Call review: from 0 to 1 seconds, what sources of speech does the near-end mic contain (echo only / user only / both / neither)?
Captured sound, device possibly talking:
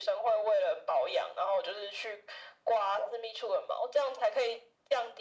echo only